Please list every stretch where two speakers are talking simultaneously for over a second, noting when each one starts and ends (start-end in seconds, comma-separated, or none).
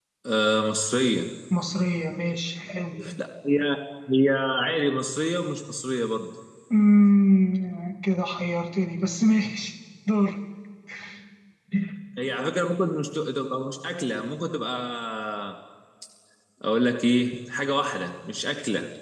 none